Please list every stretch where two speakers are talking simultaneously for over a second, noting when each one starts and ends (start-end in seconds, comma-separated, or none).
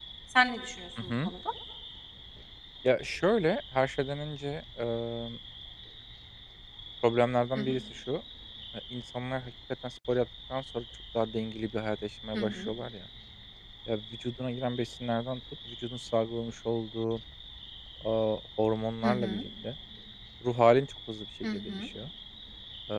none